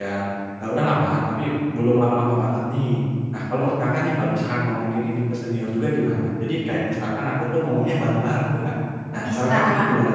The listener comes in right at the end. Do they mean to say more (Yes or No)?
Yes